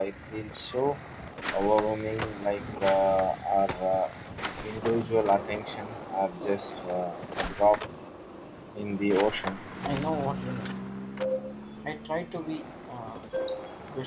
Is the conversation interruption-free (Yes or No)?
Yes